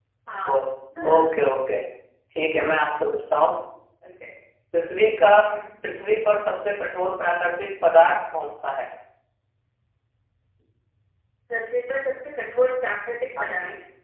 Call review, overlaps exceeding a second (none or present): none